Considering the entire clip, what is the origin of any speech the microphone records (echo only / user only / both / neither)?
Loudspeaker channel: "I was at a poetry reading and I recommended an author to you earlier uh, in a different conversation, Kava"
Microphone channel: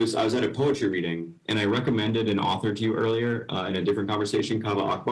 echo only